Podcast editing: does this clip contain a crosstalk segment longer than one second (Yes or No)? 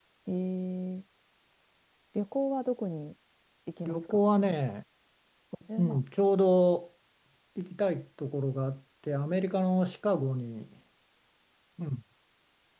No